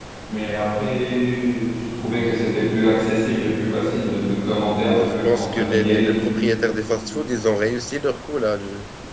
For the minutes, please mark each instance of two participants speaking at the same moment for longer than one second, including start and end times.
4.9-6.1

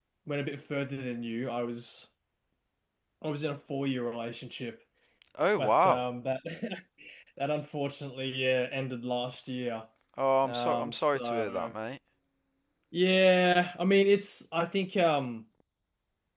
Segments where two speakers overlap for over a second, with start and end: 10.4-11.7

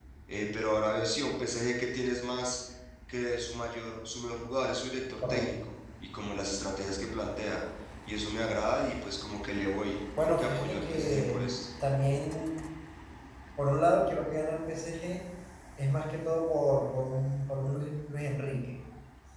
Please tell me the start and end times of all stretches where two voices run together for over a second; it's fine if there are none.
10.2-11.4

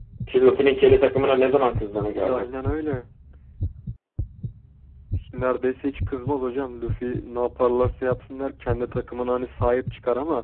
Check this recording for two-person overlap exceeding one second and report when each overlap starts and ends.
none

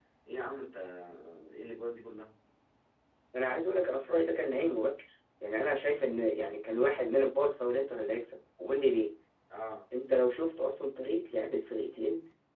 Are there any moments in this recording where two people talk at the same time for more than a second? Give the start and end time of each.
none

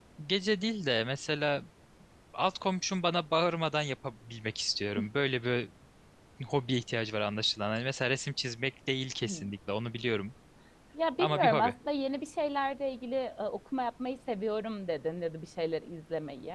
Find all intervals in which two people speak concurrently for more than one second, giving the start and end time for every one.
none

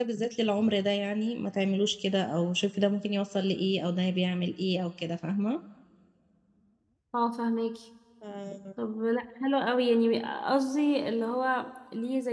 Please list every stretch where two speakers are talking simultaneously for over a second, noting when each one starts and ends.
none

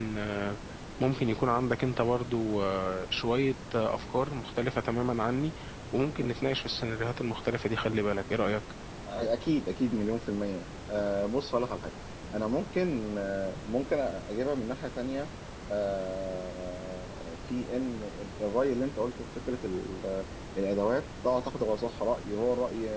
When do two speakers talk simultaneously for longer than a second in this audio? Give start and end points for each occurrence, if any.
none

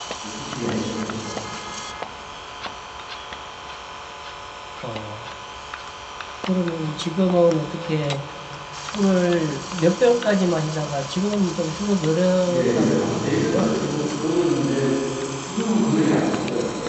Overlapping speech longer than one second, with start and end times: 12.4-13.8

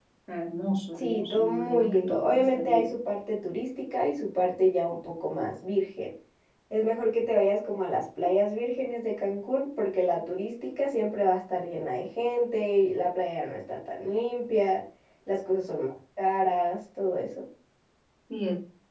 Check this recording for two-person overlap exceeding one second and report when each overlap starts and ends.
0.9-2.9

